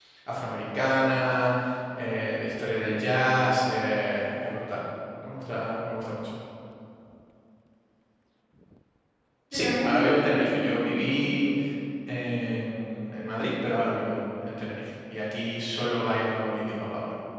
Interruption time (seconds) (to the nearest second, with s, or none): 10 s